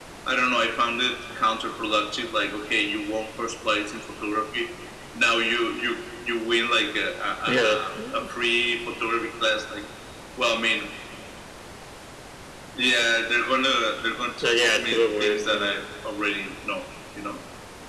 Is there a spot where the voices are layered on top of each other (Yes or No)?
Yes